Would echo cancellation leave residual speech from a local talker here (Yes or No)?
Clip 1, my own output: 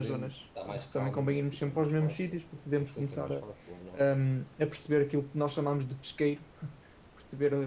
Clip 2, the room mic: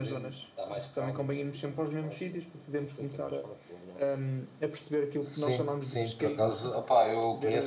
Yes